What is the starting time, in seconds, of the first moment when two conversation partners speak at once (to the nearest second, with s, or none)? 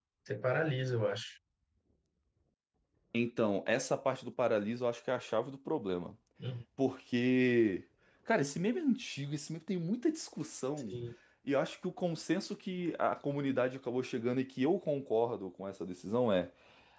none